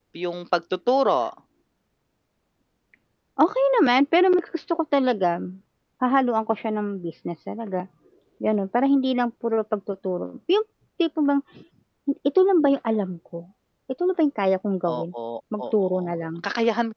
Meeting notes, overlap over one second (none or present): none